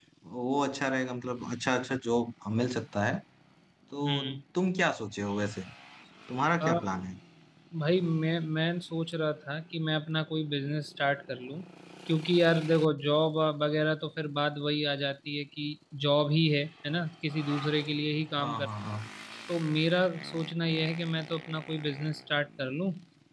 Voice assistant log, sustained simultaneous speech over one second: none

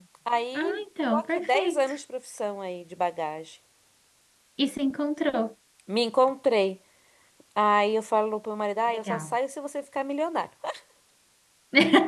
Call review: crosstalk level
present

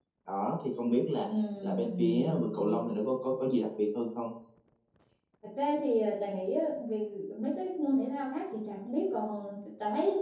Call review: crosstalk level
present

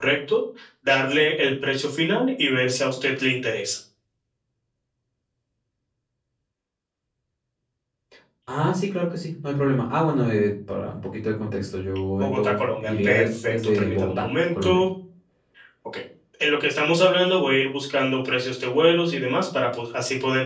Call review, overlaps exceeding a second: present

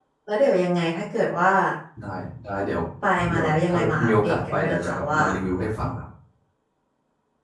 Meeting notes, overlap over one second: present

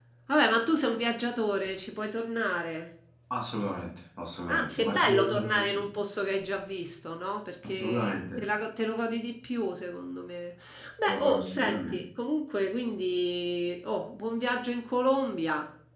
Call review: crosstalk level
present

